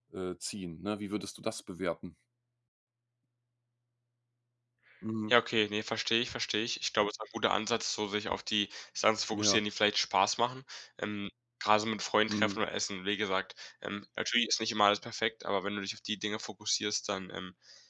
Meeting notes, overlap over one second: none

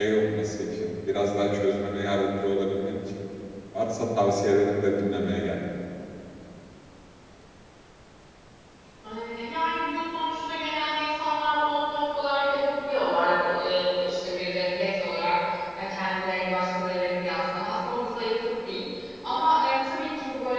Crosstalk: none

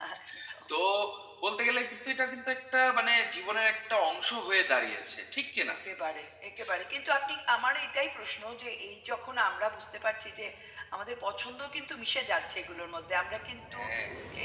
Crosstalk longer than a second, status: none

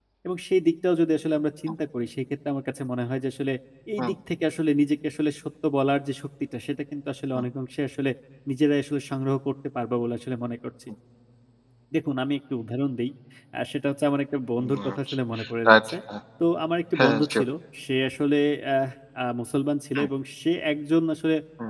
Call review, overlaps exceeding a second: none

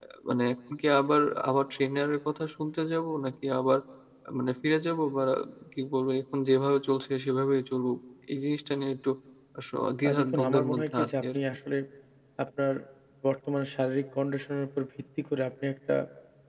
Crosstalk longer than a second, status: present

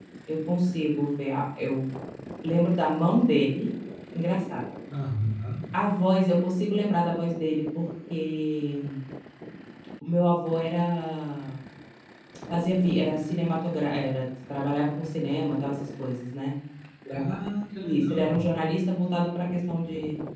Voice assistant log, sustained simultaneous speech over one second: none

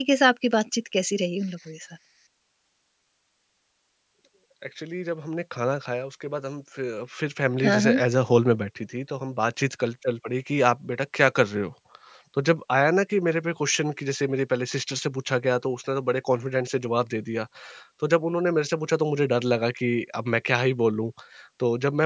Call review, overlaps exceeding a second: none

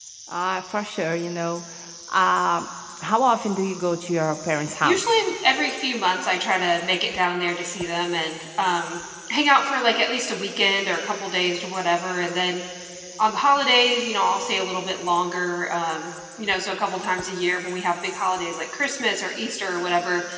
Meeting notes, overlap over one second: none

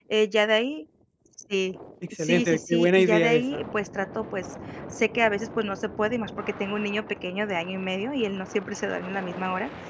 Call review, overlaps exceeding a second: present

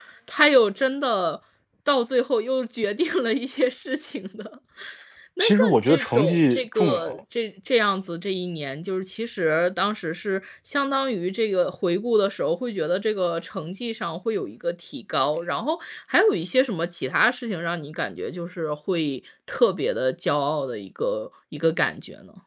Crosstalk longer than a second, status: present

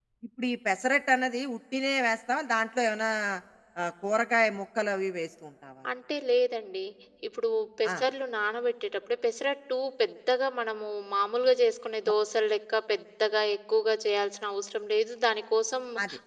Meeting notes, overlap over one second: none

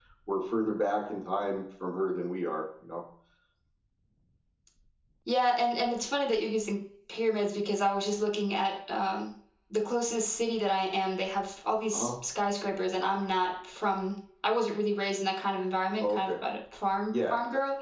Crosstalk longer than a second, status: none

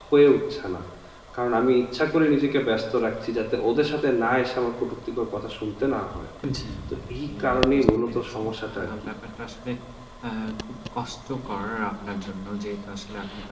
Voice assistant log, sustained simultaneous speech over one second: present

